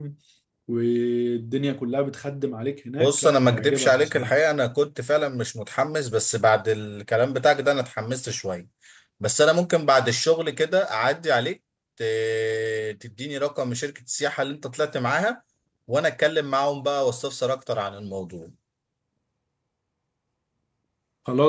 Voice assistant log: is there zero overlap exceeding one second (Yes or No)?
No